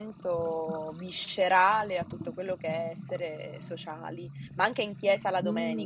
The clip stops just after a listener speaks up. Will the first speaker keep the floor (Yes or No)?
No